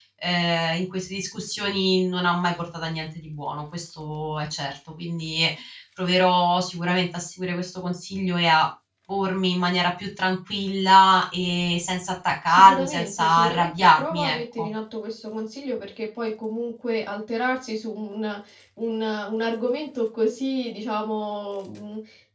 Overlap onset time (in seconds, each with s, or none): 12.5 s